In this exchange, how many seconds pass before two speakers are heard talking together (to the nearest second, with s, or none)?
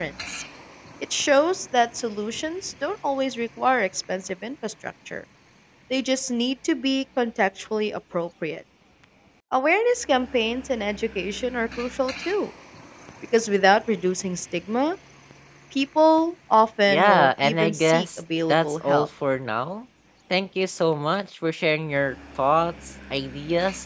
17 s